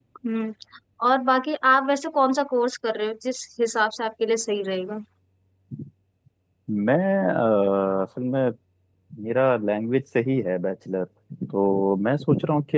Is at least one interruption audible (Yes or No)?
No